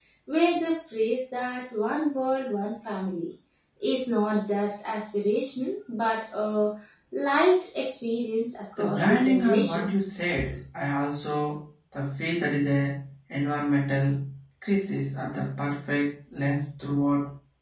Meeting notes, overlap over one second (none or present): present